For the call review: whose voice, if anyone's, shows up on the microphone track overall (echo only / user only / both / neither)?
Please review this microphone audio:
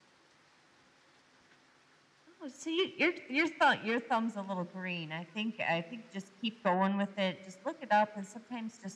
echo only